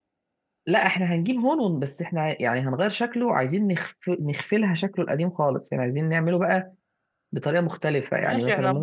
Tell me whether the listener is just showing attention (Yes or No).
No